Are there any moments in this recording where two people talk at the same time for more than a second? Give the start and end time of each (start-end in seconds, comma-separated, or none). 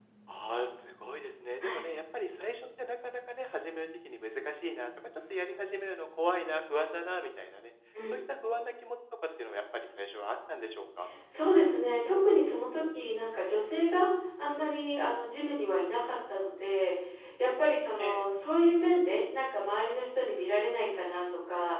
none